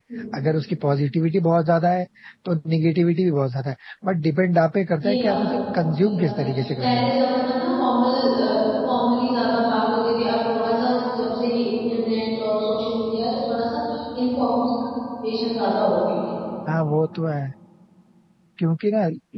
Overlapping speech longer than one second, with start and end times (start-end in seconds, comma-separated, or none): 5.0-7.1